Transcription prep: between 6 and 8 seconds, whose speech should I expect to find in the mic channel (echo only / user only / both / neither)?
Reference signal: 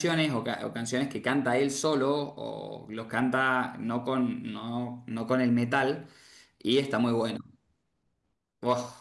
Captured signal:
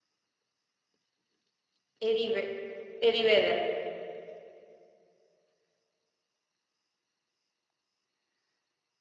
neither